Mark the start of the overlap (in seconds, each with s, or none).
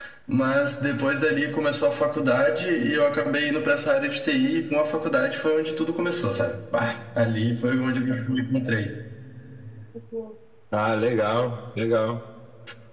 none